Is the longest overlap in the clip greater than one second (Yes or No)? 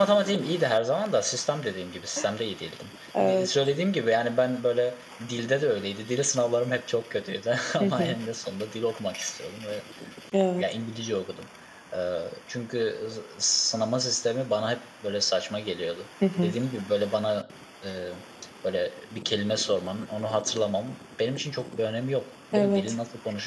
No